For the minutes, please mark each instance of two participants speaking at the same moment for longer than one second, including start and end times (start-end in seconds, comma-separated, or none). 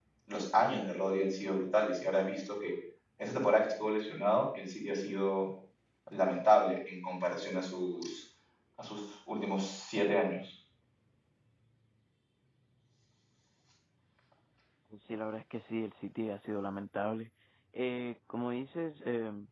none